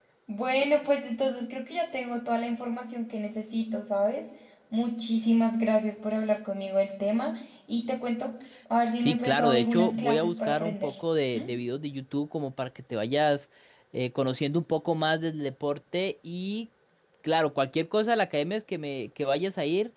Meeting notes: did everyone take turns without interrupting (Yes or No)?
No